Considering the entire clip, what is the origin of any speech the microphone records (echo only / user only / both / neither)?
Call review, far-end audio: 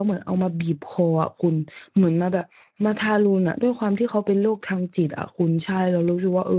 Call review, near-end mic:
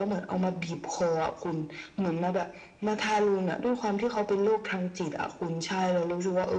echo only